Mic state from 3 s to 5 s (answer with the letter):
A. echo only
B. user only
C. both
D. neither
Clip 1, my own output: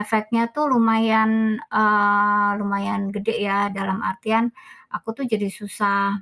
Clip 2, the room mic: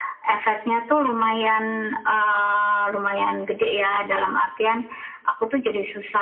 A